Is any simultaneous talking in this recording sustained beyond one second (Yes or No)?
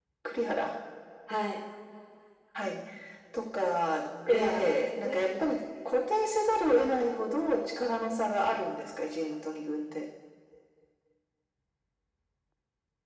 Yes